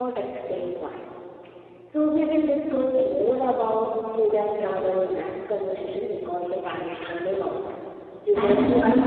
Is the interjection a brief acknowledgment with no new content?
No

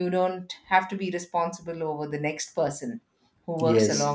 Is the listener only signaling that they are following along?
Yes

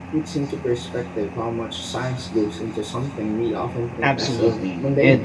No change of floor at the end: No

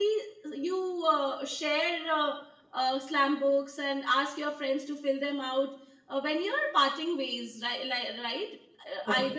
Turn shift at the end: No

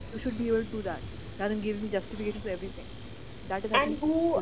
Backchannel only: No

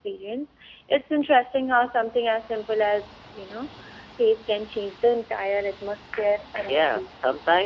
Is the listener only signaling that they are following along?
No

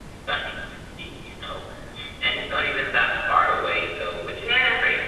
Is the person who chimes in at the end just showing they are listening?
No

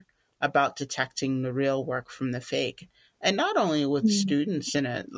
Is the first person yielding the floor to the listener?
No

